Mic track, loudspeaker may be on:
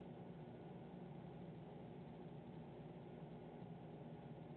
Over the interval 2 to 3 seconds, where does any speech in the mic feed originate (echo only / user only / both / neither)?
neither